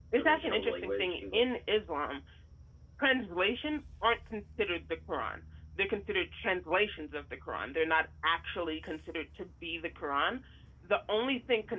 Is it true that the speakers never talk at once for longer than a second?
No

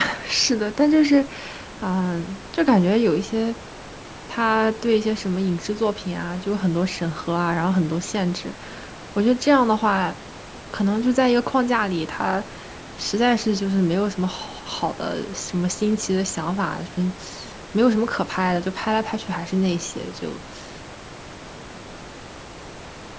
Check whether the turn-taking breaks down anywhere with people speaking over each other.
No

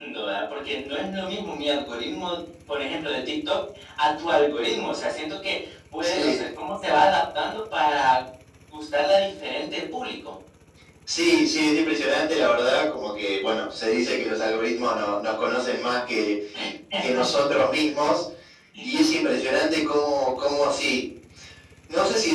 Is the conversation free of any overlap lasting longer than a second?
Yes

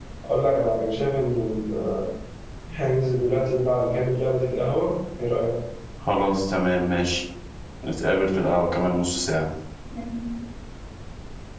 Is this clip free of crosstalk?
Yes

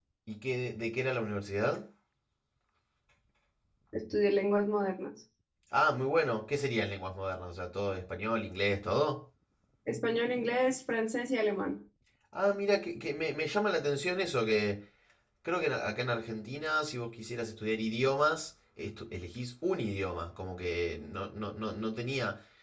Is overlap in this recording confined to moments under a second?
Yes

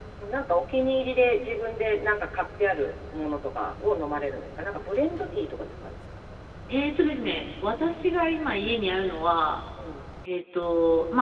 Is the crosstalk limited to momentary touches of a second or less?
Yes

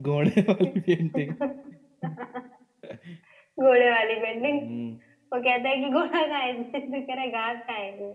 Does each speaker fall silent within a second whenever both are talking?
Yes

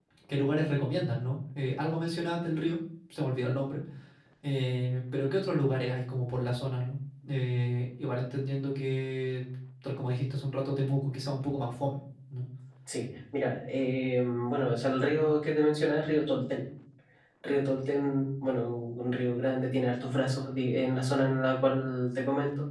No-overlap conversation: Yes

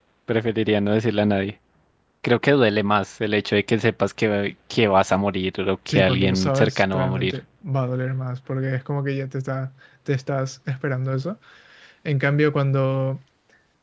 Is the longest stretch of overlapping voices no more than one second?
No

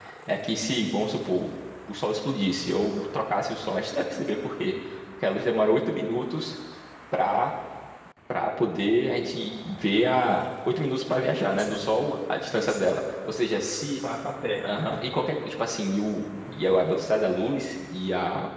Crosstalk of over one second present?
No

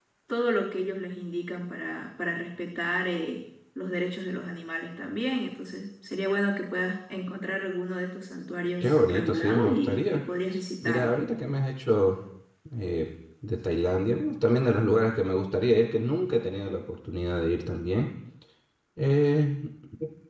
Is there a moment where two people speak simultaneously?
Yes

